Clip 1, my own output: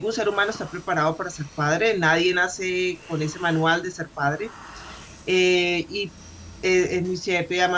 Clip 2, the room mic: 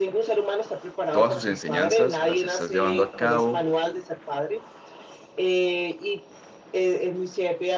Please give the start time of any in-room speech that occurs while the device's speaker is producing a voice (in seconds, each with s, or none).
1.1 s